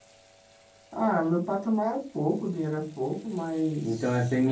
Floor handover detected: Yes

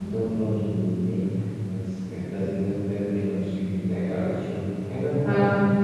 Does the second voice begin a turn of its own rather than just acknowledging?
No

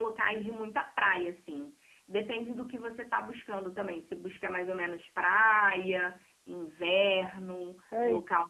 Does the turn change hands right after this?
Yes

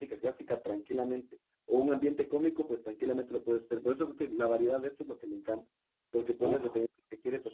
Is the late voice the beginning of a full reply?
No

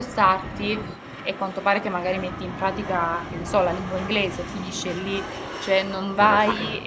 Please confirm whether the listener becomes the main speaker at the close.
No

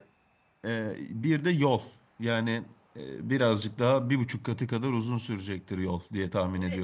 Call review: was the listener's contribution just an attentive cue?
No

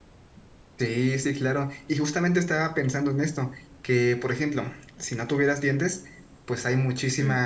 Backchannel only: Yes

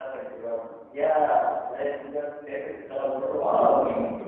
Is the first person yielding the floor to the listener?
Yes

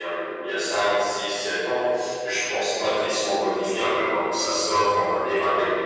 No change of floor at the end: Yes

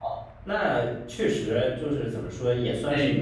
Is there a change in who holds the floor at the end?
No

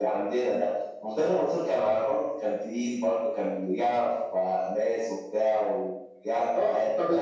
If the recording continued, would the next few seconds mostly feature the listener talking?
Yes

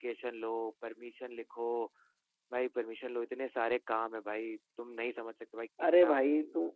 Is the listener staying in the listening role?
No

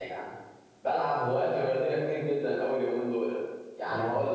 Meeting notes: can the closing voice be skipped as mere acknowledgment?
Yes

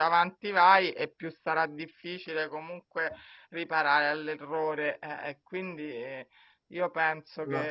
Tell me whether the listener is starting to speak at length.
No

